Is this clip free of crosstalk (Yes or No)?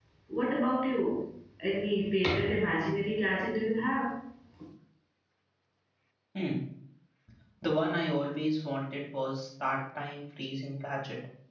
Yes